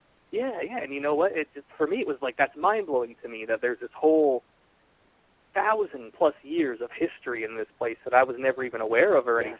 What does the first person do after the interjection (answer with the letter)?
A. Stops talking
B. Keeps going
B